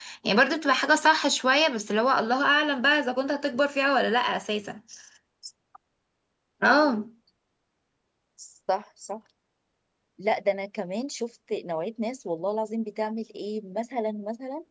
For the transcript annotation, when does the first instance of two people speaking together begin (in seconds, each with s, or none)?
none